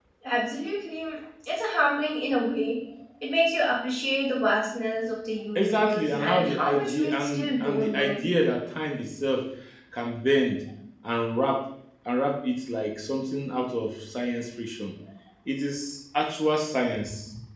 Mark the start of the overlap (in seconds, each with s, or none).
5.5 s